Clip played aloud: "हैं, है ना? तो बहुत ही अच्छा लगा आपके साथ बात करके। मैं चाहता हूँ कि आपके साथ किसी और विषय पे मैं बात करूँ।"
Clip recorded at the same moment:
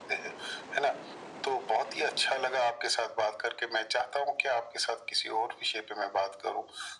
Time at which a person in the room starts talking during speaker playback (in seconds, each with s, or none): none